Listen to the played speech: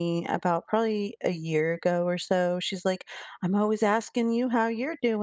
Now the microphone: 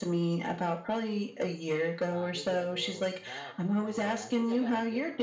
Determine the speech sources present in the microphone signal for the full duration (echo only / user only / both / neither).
both